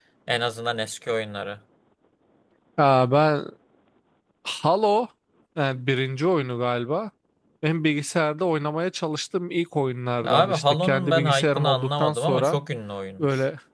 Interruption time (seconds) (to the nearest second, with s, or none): 10 s